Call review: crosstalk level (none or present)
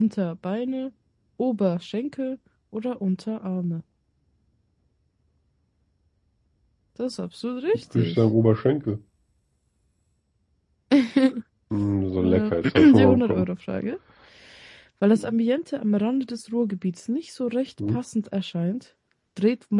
present